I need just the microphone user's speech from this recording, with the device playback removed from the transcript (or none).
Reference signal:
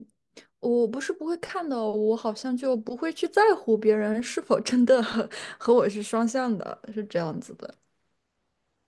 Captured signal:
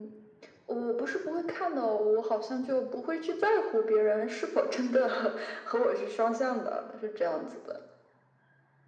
none